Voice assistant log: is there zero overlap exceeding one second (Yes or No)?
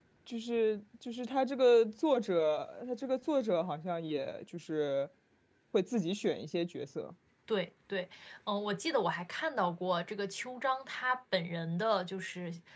Yes